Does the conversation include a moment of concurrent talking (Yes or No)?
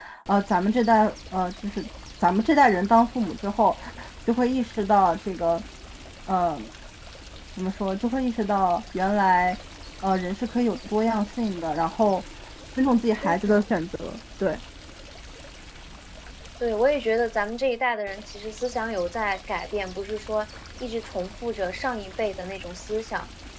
No